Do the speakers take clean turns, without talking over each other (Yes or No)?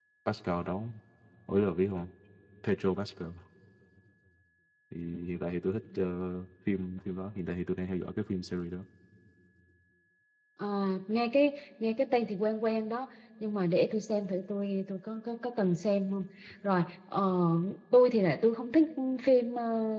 Yes